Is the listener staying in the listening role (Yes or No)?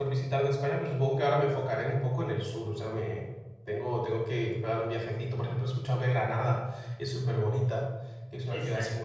Yes